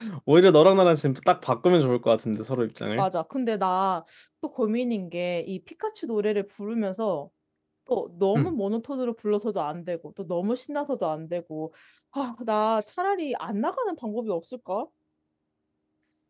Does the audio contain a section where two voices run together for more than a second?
No

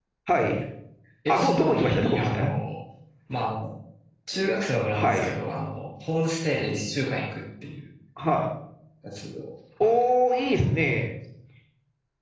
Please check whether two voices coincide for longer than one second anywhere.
Yes, from 1.3 s

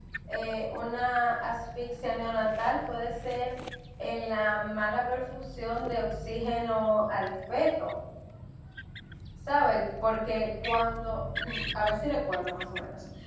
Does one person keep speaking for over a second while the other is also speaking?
No

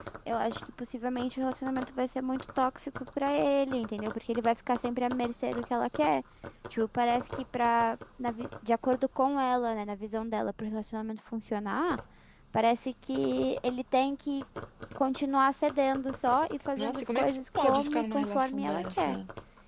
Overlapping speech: Yes, from 16.8 s

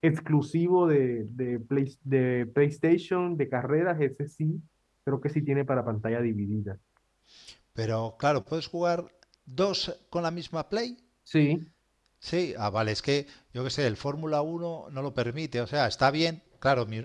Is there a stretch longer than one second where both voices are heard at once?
No

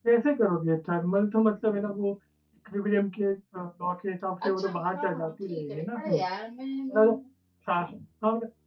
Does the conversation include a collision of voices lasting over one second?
Yes, from 4.4 s

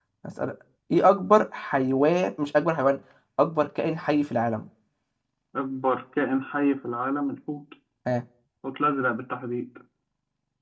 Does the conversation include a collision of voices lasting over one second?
No

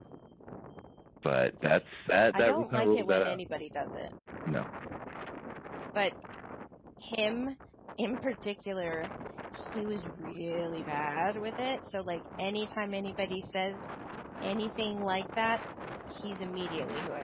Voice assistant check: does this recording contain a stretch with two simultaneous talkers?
Yes, from 2.1 s

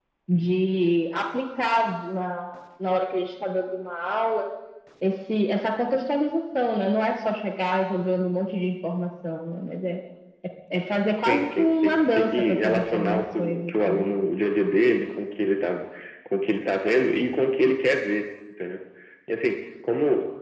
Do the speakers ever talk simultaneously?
Yes, from 11.2 s

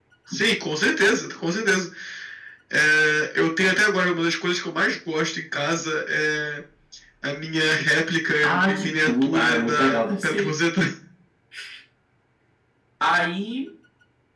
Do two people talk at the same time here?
Yes, from 8.4 s

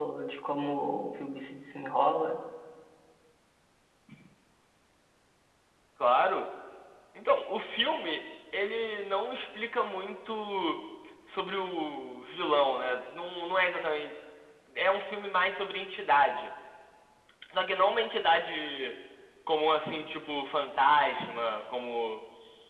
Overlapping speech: No

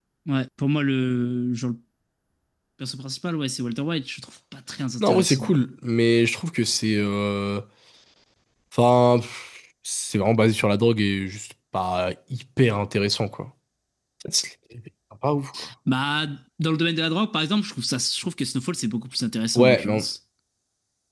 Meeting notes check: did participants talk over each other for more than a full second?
No

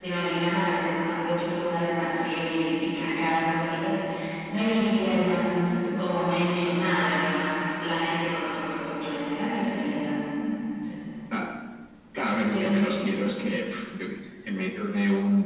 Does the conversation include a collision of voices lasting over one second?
No

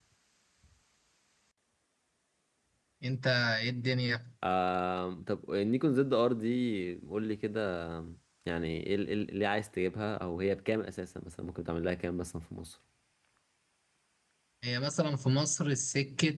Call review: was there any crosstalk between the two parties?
No

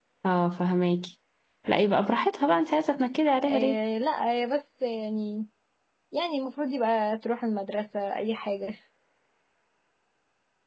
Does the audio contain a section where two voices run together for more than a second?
No

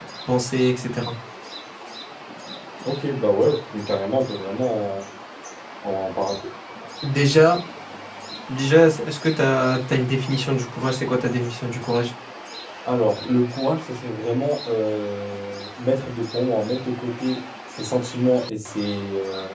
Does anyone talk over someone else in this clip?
No

